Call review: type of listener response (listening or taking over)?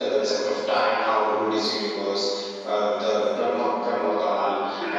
listening